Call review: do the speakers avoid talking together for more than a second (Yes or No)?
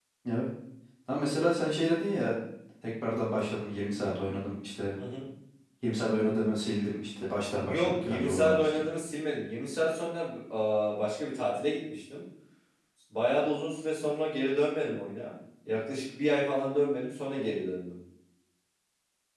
No